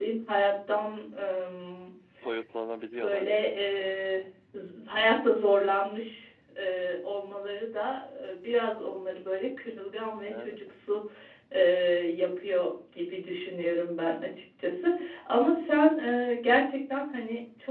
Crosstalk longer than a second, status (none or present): none